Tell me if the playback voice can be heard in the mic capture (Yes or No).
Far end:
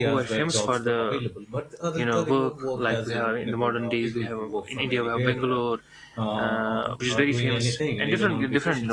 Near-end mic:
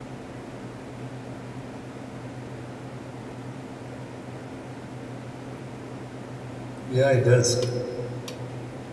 No